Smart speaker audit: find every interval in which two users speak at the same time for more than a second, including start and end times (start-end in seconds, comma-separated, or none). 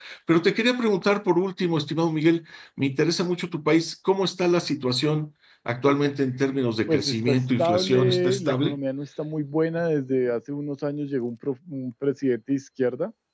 6.9-8.8